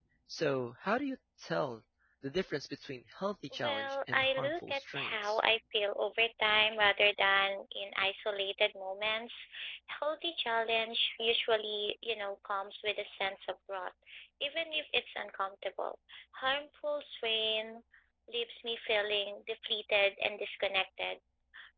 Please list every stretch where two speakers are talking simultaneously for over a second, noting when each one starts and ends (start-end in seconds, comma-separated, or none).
3.6-5.4